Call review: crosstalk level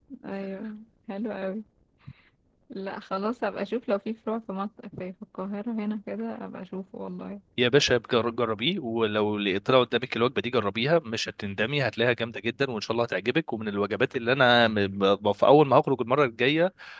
none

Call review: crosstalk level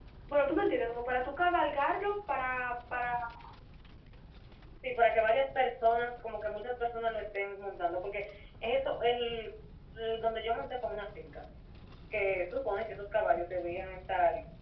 none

